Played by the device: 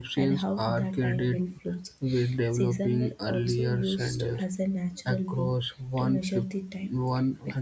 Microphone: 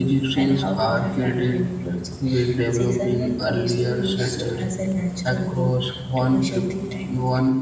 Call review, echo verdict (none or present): present